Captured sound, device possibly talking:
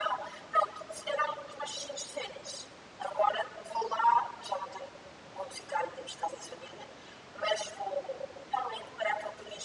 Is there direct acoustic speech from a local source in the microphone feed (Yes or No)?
No